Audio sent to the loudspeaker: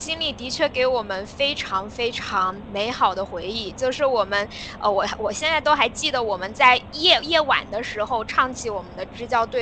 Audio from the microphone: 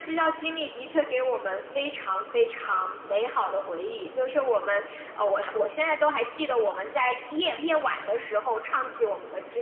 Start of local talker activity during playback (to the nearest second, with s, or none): none